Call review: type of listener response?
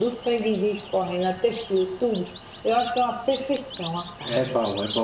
taking over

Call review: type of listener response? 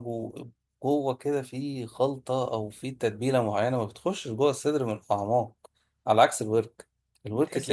taking over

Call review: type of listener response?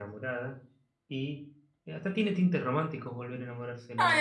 taking over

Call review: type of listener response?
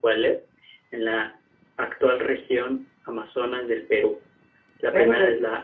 listening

